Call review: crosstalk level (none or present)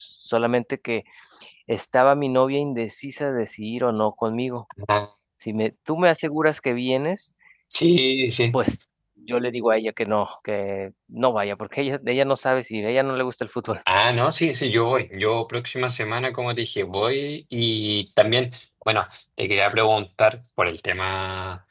none